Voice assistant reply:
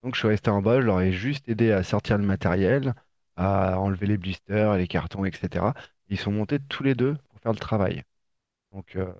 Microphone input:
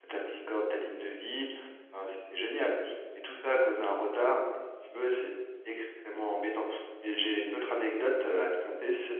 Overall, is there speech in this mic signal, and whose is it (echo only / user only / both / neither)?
user only